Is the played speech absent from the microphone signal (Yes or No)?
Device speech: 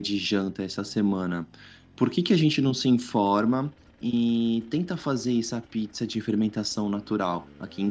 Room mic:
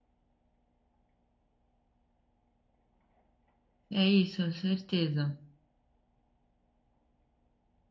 Yes